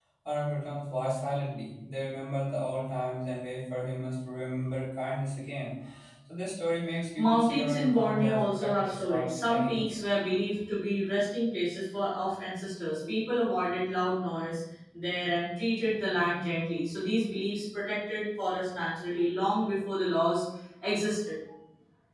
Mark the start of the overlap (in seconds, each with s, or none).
7.2 s